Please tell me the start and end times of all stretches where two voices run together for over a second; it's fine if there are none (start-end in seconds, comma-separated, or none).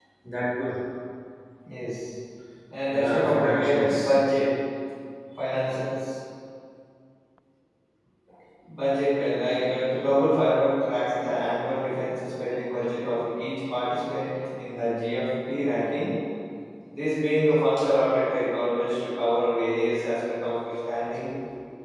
2.9-4.2